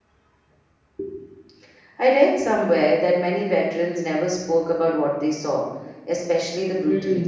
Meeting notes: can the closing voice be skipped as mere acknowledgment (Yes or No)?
No